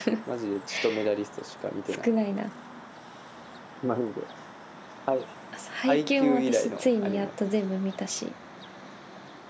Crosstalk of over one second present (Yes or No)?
Yes